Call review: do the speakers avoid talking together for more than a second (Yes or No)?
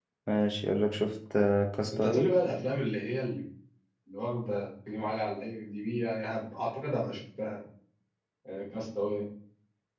Yes